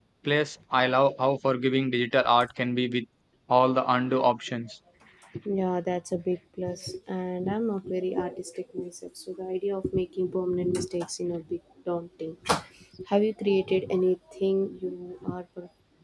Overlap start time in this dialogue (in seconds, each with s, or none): none